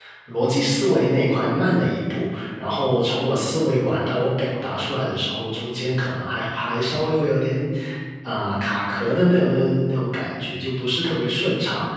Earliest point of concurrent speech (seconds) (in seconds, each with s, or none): none